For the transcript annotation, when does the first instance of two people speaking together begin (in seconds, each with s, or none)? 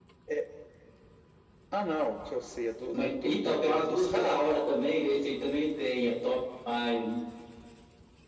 2.9 s